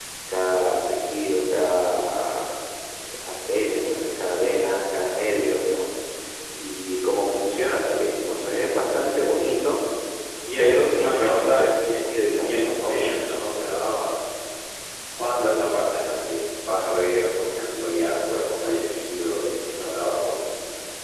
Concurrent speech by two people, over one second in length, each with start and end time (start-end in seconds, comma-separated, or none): 10.6-12.5